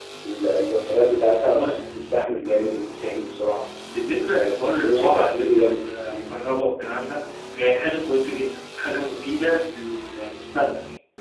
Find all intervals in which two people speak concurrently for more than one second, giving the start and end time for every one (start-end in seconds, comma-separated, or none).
4.3-6.4